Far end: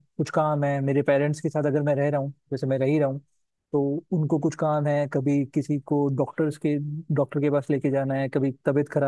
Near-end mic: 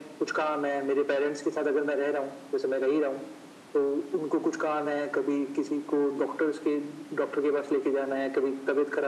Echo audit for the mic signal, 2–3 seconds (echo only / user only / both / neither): echo only